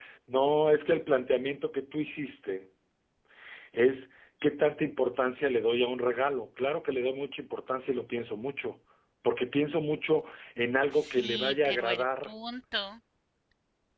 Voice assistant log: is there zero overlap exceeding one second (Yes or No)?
No